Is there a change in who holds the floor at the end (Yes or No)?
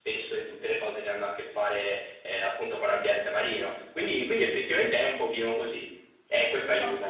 Yes